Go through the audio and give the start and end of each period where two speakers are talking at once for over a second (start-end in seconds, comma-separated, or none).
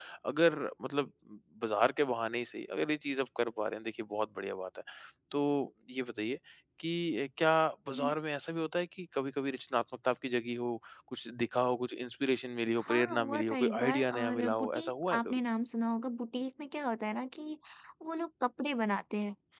12.8-15.4